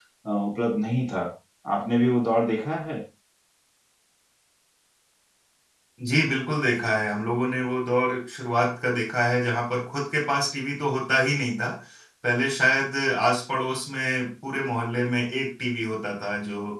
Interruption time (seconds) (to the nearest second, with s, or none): none